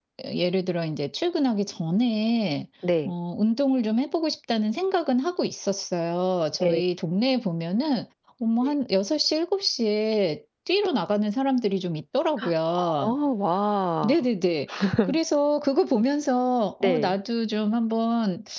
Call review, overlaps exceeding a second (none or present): none